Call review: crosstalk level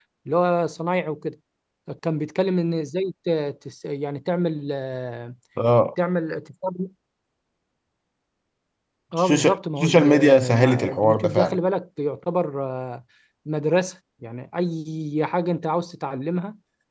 present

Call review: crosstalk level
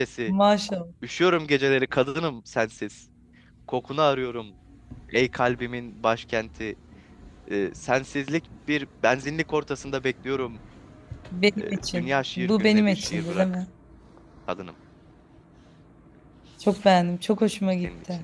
present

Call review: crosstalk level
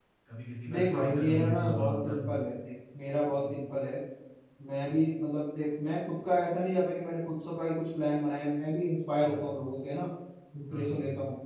present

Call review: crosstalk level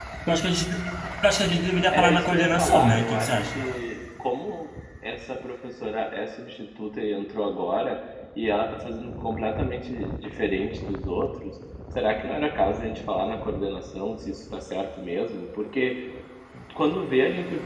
present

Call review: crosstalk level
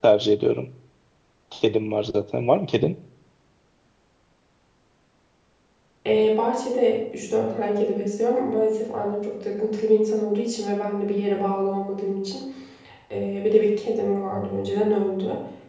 none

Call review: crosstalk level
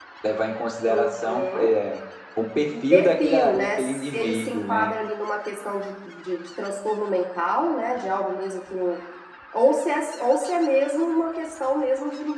present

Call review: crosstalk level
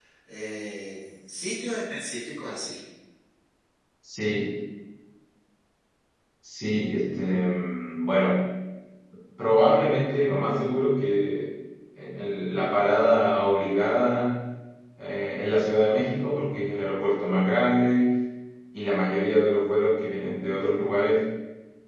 none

